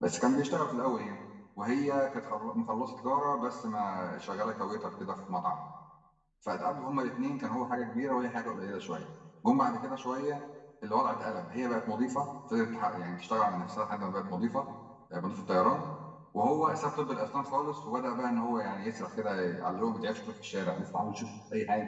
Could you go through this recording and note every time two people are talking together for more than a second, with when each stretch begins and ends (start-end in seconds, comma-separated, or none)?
none